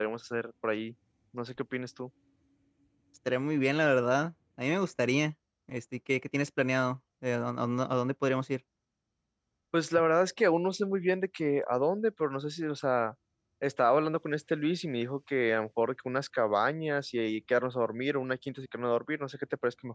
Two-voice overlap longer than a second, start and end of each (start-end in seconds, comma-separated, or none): none